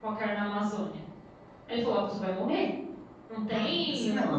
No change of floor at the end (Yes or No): No